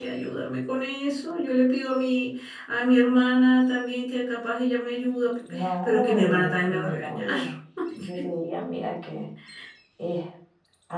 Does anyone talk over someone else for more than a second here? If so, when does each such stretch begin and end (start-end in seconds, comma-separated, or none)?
5.5-7.3